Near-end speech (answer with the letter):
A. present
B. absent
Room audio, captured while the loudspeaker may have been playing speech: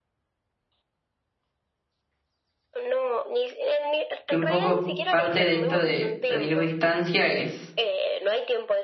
A